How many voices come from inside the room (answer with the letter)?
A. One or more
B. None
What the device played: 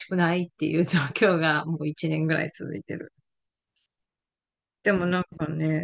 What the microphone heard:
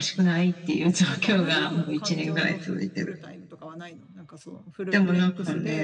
A